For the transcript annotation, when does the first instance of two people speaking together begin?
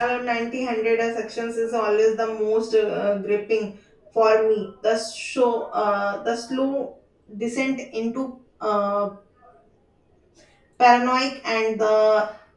none

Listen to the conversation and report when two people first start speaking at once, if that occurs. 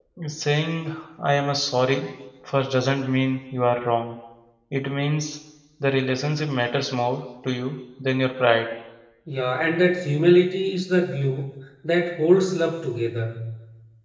none

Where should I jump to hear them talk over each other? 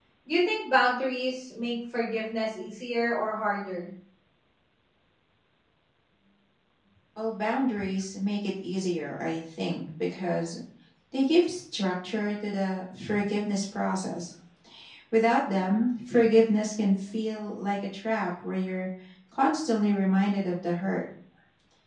none

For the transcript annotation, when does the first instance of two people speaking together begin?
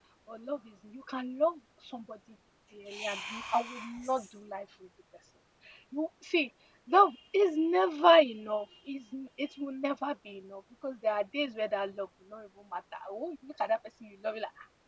3 s

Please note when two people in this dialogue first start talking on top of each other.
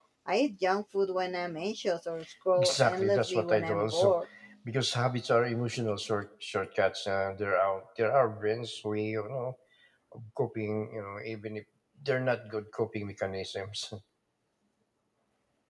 3 s

